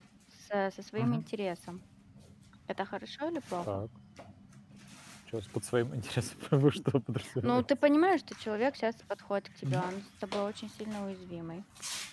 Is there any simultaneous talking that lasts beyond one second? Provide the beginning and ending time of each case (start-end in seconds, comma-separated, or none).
none